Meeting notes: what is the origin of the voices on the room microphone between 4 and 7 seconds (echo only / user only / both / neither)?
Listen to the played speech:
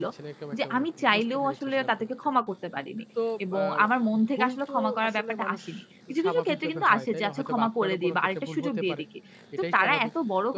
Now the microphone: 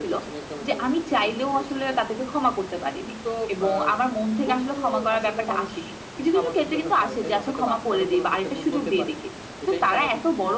echo only